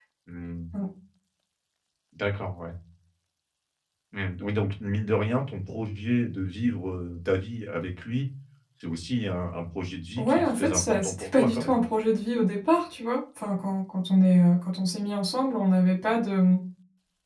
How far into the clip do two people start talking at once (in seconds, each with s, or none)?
10.2 s